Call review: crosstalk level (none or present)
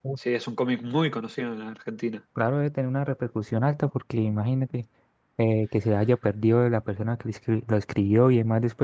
none